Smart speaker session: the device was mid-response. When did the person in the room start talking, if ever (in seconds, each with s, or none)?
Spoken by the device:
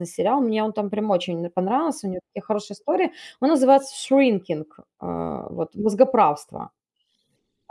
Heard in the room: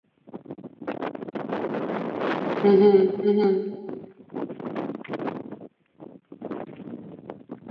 2.6 s